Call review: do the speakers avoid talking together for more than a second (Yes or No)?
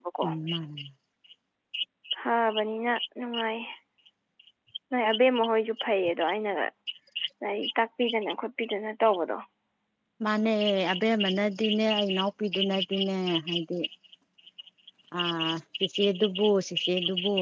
Yes